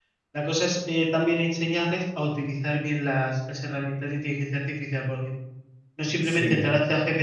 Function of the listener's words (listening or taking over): listening